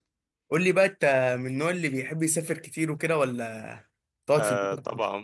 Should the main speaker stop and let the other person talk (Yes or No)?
Yes